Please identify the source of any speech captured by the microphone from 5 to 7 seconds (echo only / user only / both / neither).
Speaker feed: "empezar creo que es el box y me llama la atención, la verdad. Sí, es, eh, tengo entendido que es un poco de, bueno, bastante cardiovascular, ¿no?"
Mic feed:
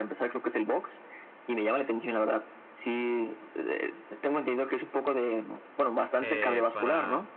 both